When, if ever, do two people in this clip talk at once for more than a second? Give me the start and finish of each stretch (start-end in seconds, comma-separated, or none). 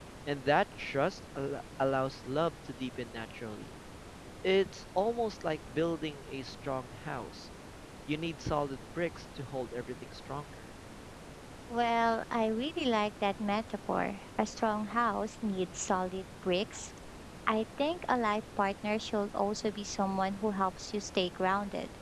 none